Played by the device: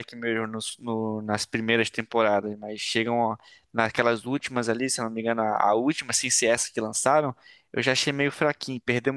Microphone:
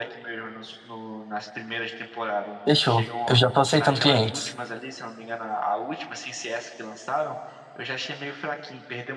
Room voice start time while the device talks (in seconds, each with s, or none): 2.6 s